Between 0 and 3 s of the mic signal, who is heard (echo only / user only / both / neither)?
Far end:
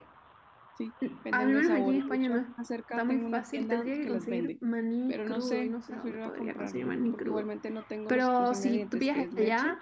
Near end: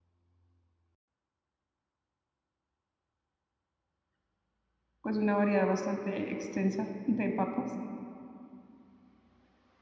neither